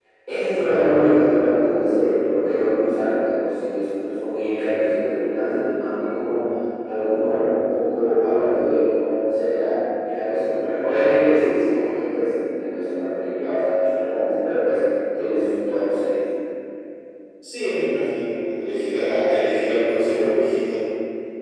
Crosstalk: none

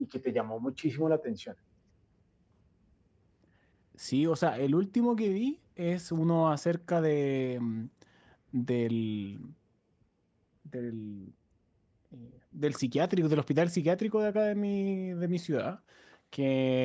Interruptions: none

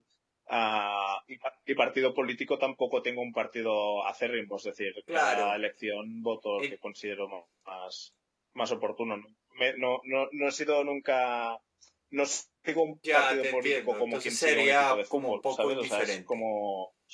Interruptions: present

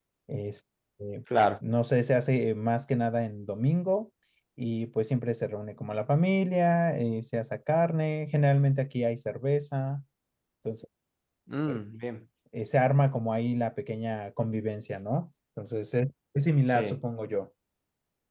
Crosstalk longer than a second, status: none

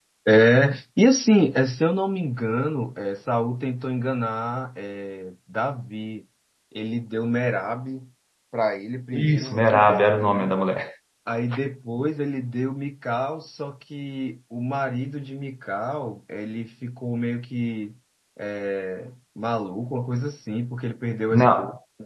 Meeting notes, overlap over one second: present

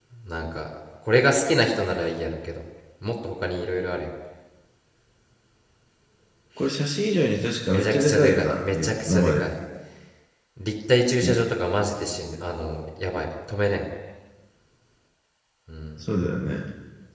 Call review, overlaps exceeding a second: present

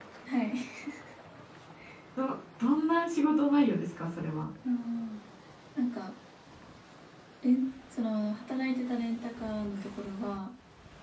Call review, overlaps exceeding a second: none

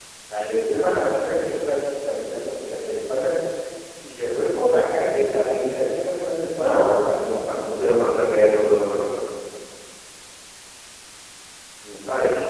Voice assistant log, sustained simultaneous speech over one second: present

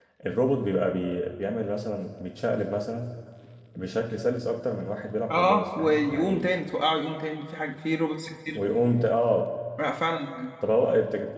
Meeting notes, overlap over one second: present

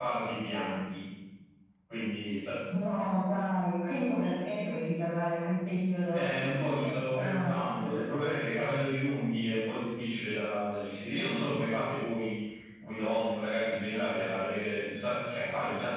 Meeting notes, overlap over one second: present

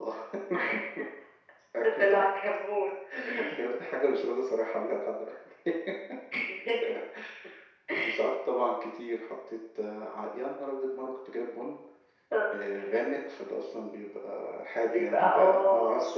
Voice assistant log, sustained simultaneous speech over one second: present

